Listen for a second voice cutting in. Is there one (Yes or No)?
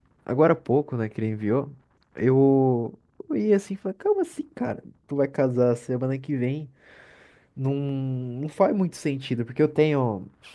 No